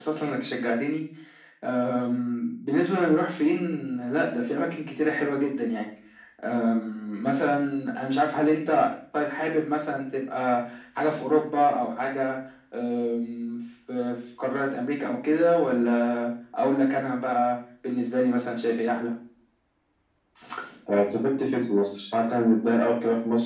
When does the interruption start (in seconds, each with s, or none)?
none